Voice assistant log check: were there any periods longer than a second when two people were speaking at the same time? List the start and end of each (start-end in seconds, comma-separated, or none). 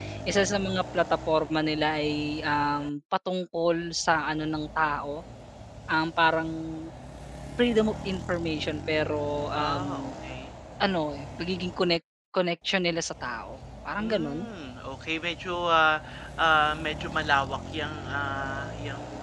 none